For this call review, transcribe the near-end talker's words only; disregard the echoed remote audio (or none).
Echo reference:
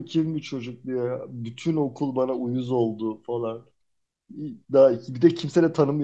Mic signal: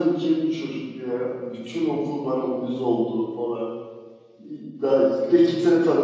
none